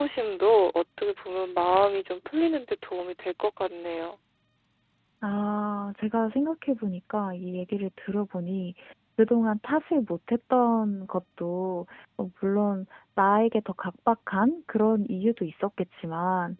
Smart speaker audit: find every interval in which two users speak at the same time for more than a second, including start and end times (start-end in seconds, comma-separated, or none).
none